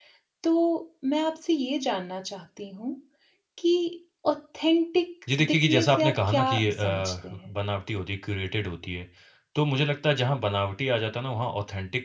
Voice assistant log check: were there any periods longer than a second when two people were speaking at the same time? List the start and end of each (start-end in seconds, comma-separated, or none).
5.4-7.3